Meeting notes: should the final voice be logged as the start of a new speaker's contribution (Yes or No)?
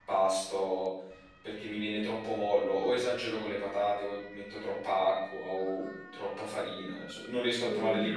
Yes